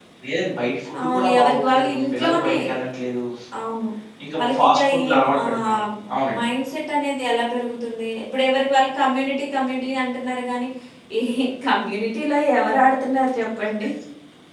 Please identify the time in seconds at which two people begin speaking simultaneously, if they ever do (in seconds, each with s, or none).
1.1 s